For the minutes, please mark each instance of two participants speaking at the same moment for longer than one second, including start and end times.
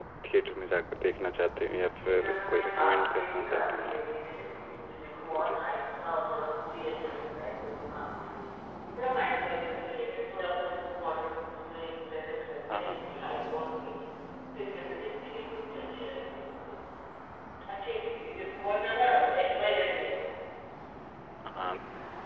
2.1-4.0

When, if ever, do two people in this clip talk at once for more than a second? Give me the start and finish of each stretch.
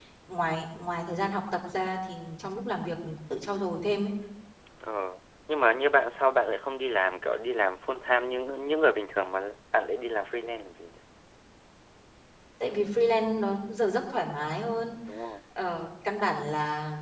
none

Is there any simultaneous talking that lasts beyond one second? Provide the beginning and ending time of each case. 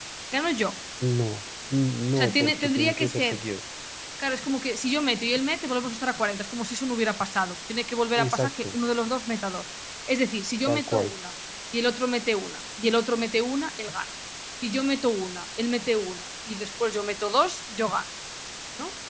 2.2-3.4

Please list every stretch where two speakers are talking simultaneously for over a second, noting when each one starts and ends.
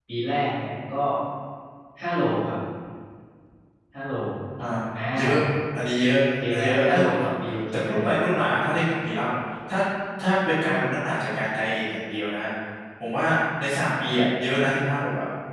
none

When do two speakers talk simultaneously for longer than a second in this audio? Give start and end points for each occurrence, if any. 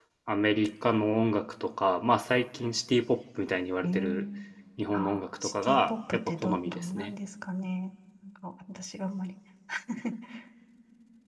4.9-7.1

